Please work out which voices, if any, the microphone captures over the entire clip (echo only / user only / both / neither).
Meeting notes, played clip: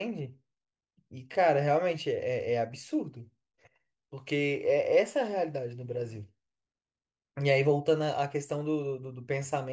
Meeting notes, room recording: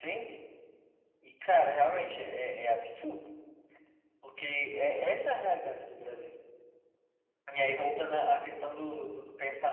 echo only